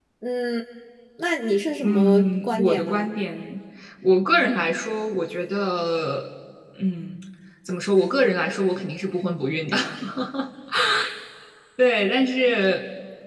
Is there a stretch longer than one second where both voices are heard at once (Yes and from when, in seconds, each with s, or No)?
Yes, from 1.8 s